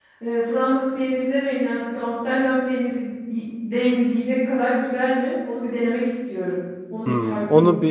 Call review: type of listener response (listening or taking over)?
taking over